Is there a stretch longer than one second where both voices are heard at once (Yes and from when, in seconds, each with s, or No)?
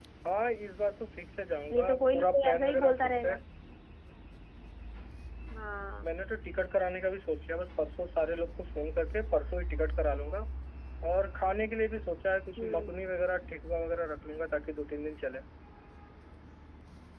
Yes, from 1.7 s